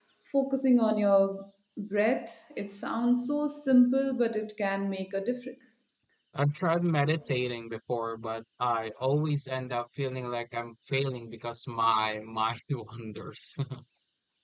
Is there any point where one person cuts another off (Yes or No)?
No